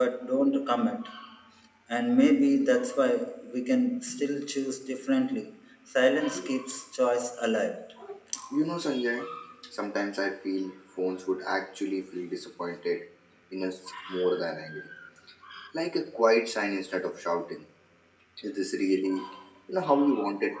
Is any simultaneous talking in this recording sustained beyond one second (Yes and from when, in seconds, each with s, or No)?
No